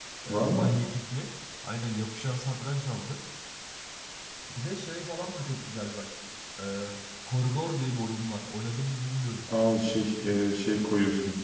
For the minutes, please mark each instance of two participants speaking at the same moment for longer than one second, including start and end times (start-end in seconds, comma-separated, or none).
none